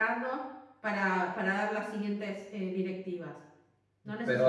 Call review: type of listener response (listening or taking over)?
taking over